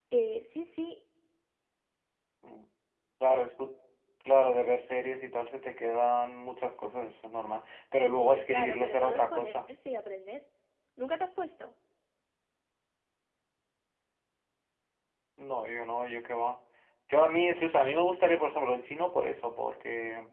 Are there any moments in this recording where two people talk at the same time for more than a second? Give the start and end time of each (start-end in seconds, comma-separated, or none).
8.2-9.7